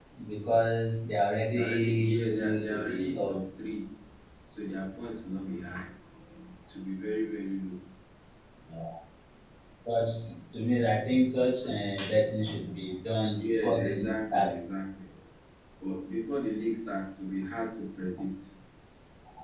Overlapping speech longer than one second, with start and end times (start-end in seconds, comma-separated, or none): 1.5-3.3, 13.4-14.6